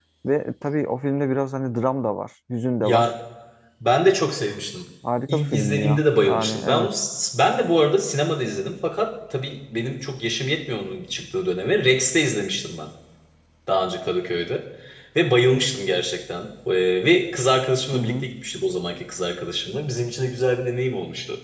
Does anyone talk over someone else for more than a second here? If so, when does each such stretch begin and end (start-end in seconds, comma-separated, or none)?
5.3-6.9